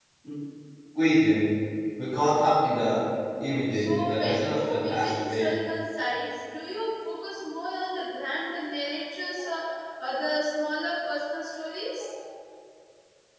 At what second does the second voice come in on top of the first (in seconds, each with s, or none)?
3.7 s